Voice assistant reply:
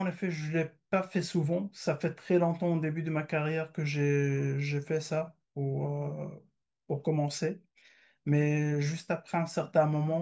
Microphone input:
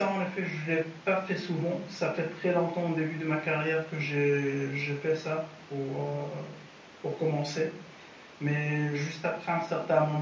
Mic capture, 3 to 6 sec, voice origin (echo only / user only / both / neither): echo only